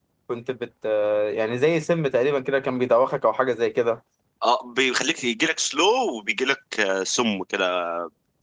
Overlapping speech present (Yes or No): No